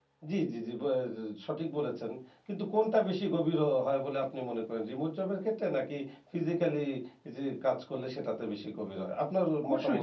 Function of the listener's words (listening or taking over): taking over